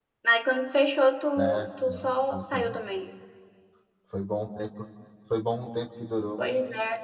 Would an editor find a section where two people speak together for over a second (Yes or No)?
Yes